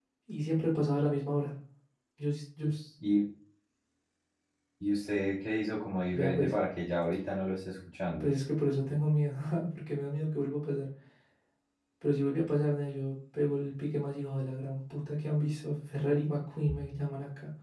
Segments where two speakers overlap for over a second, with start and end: none

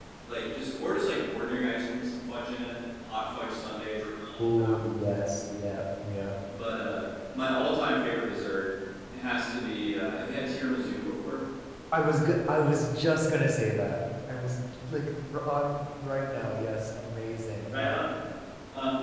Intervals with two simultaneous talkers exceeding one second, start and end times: none

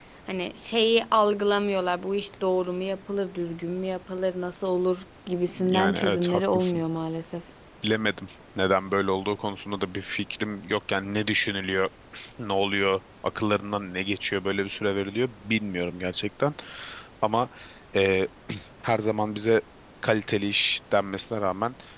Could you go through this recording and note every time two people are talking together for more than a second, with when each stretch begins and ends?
5.5-6.8

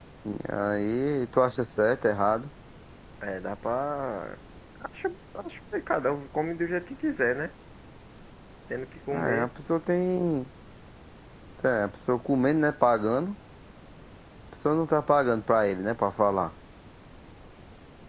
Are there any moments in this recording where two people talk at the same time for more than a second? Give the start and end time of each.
none

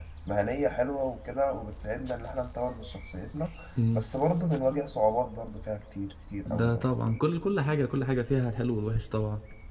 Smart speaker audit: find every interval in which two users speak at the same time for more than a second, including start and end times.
none

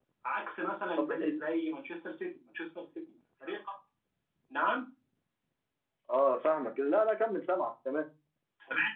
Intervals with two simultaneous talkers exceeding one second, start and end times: none

